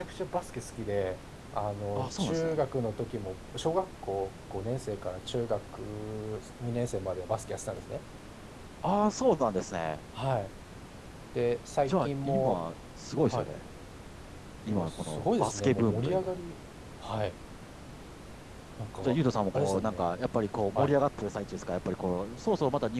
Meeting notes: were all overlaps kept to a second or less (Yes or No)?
No